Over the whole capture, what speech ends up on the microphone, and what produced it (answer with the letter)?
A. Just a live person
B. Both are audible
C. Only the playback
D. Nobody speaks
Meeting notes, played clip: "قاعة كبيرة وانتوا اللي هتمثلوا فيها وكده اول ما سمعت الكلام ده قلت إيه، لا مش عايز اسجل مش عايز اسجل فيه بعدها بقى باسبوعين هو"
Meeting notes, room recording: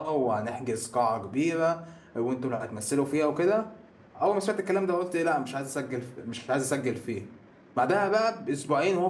C